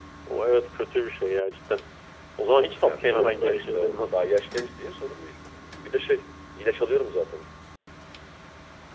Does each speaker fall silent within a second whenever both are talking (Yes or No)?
No